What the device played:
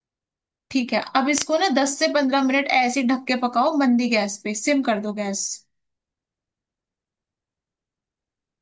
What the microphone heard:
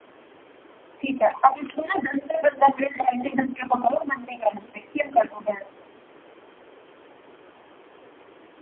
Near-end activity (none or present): none